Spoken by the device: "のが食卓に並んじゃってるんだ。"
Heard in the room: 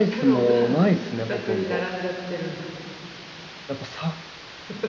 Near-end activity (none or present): present